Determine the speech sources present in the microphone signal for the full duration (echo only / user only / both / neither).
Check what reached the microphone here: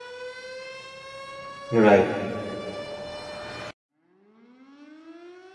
user only